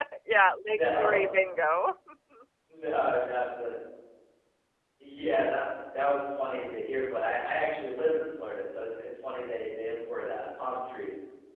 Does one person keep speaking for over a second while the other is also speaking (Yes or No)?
No